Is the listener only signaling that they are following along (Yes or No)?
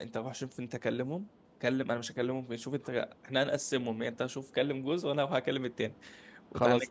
Yes